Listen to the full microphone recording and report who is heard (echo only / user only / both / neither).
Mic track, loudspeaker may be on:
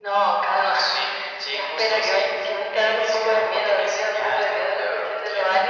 echo only